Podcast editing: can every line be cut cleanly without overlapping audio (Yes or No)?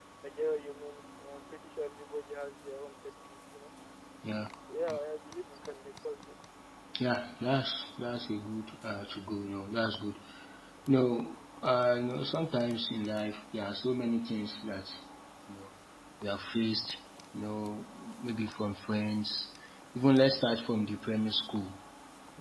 Yes